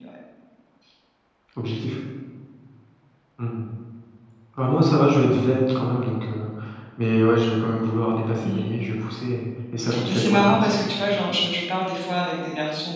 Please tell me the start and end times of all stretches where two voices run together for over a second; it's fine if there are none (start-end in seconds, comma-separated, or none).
10.1-11.3